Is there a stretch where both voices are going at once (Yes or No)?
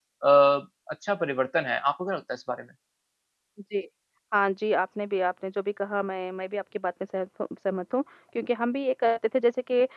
No